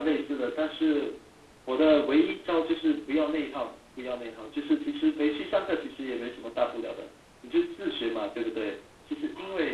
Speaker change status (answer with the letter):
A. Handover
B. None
B